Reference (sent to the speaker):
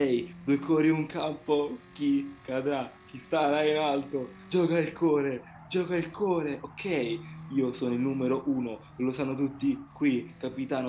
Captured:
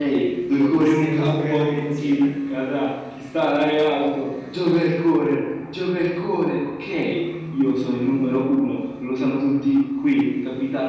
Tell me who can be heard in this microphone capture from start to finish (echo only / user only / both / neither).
both